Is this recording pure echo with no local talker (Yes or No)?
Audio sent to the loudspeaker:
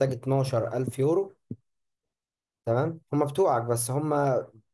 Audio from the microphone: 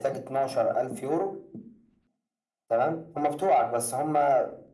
Yes